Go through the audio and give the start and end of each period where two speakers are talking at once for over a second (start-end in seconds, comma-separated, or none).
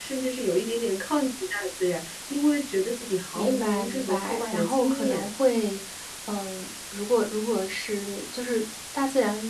3.4-5.3